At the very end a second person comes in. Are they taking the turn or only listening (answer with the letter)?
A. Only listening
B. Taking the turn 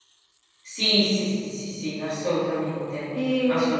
B